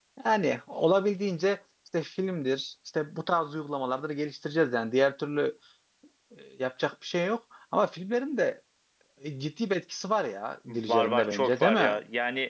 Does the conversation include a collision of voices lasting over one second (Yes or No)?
Yes